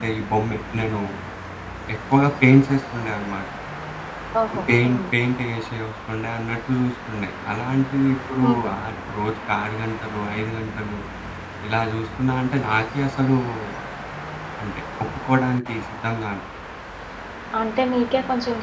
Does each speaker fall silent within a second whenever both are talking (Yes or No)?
Yes